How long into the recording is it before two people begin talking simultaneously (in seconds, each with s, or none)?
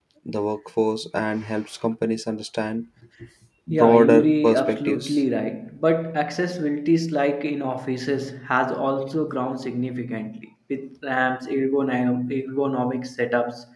3.7 s